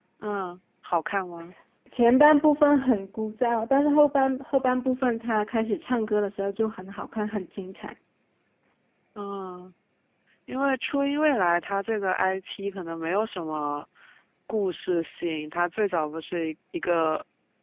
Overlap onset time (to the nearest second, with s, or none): none